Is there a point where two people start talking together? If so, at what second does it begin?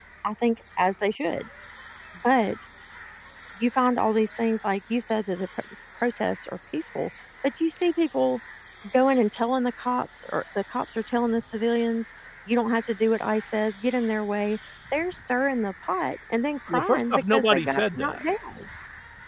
16.7 s

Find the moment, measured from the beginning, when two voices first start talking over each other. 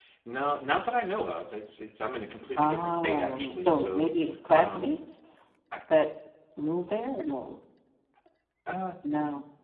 2.6 s

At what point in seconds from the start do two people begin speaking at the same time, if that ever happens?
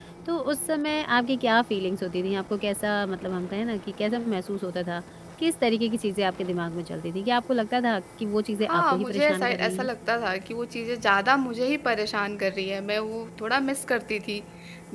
8.6 s

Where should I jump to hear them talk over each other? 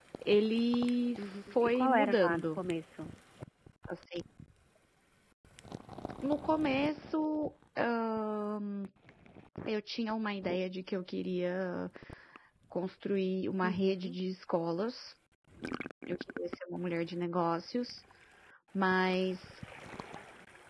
1.2 s

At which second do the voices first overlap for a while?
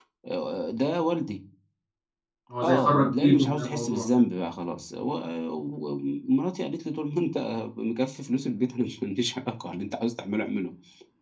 2.6 s

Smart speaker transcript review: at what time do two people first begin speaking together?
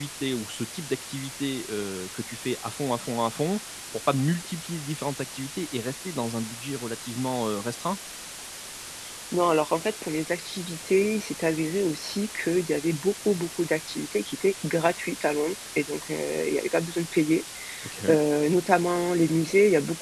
none

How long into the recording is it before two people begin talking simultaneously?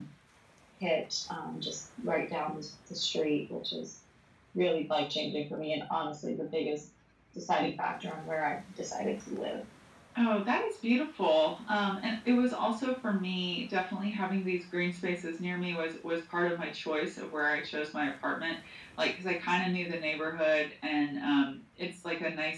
none

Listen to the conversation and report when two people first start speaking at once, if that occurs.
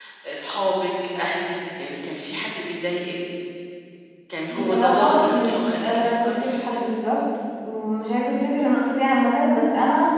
4.5 s

